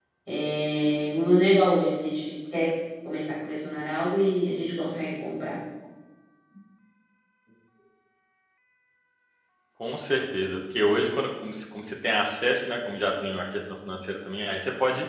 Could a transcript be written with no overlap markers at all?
Yes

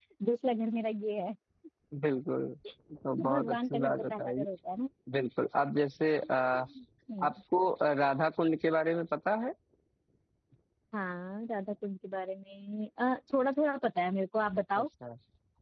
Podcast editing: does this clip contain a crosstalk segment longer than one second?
Yes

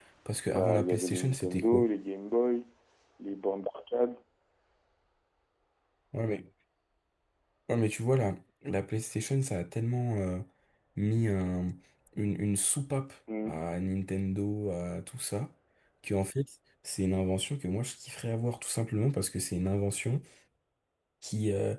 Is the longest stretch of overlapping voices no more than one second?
No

